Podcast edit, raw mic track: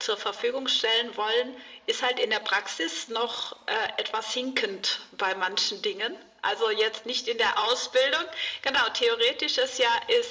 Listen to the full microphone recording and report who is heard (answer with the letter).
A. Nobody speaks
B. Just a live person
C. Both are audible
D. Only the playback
D